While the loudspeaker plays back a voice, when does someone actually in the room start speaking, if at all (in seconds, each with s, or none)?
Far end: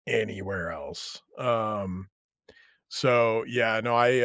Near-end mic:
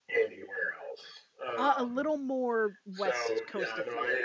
1.5 s